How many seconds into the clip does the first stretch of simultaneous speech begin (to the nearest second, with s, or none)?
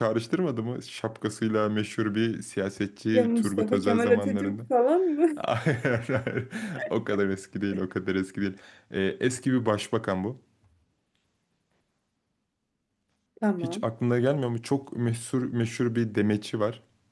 3 s